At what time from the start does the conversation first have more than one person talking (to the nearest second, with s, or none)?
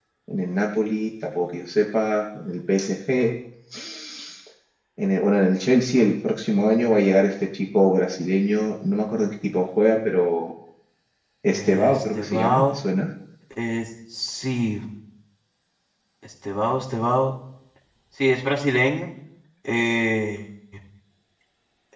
12 s